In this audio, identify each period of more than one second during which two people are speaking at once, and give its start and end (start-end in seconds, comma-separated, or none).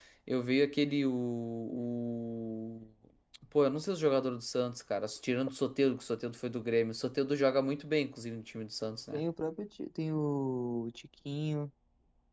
none